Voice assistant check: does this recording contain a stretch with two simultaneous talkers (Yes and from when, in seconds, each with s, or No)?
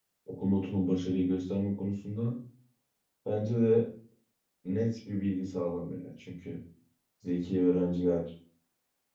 No